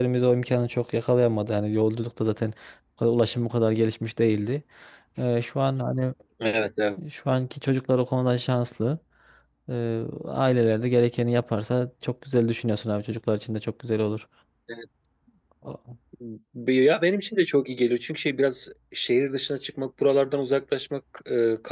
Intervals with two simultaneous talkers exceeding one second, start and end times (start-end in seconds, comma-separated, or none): none